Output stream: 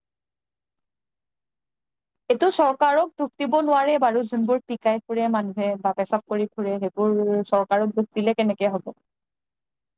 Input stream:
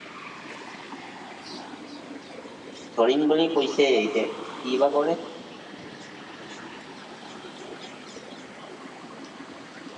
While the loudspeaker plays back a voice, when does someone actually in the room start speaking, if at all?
3.0 s

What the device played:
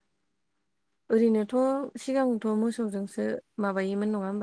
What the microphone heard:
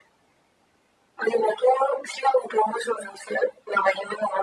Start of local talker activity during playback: none

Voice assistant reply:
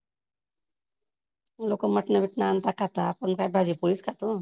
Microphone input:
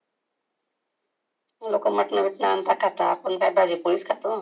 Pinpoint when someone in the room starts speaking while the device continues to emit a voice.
none

